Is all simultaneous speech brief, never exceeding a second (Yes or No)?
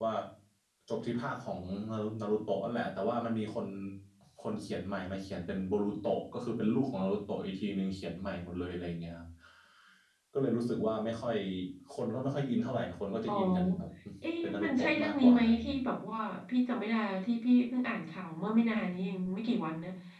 No